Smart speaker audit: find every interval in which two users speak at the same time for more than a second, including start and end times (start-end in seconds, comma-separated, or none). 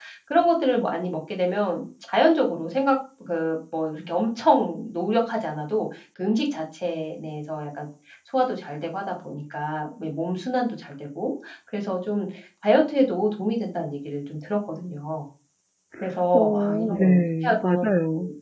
16.3-17.9